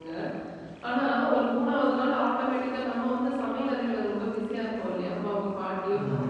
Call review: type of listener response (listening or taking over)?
listening